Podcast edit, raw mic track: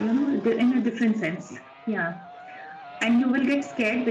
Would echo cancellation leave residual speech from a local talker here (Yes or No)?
No